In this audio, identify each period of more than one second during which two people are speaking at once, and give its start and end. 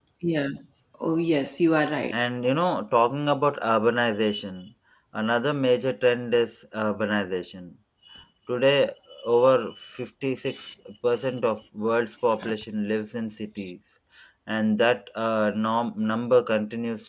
none

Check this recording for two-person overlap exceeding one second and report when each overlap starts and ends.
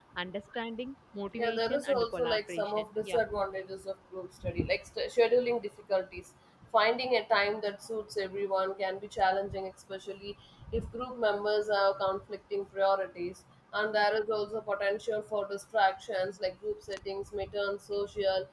1.4-3.2

